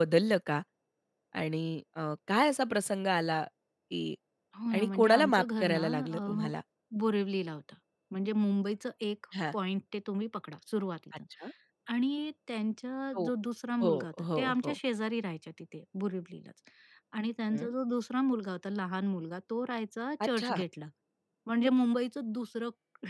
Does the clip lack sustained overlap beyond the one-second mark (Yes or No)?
No